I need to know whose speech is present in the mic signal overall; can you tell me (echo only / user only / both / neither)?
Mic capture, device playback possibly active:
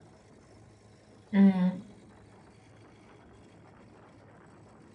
user only